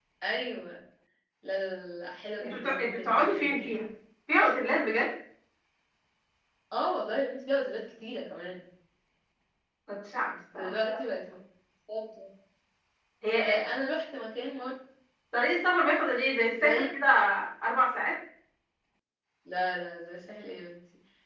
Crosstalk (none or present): present